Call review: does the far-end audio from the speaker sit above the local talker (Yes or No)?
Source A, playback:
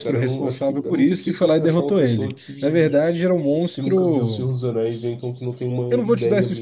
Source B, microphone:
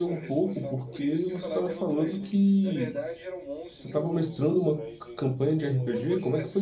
No